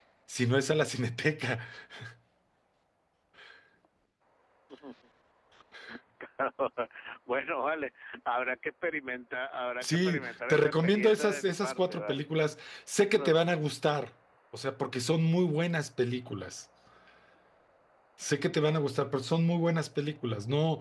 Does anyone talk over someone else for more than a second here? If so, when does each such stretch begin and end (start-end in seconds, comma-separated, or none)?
9.8-12.2